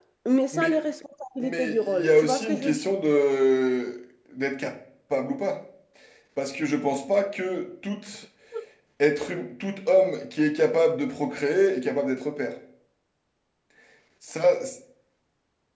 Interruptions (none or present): present